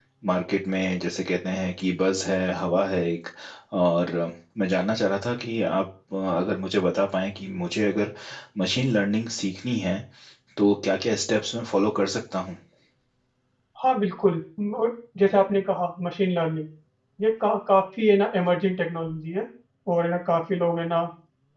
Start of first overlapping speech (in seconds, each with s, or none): none